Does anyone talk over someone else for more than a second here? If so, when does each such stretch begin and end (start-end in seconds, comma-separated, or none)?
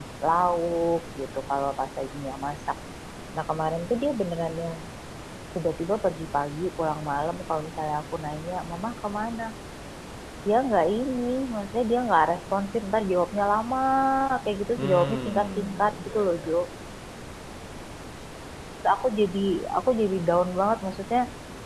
14.8-16.5